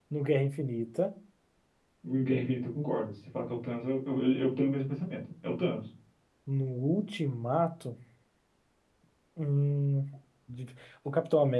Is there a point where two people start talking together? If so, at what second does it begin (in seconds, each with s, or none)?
none